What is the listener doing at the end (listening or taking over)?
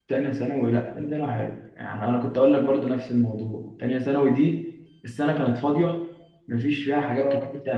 listening